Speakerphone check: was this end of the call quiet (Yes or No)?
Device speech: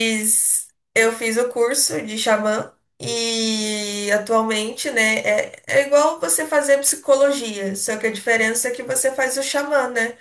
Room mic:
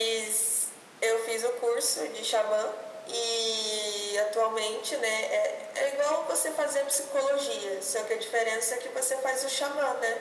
Yes